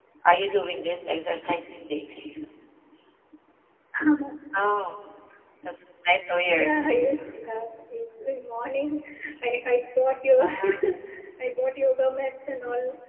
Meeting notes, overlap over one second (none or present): none